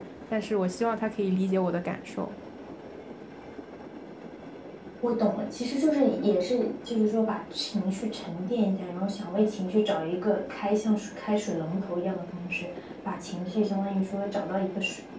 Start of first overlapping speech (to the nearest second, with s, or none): none